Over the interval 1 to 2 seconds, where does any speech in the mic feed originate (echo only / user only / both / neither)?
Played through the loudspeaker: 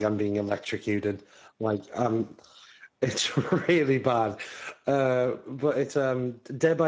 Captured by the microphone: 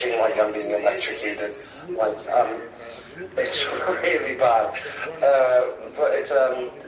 both